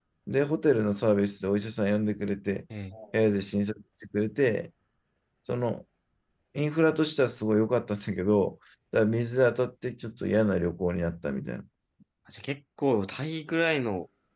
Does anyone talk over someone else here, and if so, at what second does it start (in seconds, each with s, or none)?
none